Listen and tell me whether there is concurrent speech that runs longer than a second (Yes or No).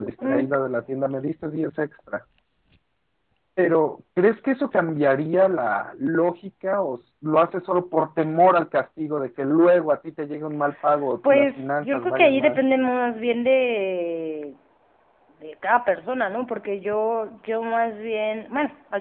Yes